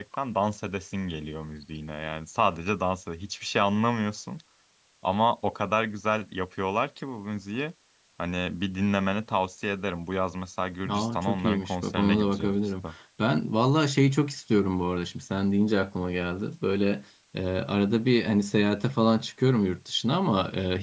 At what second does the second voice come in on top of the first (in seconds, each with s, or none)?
10.8 s